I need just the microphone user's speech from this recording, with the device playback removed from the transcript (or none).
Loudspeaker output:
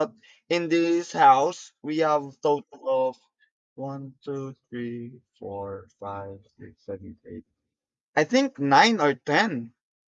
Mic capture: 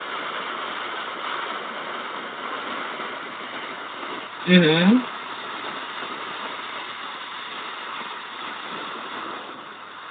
mhm.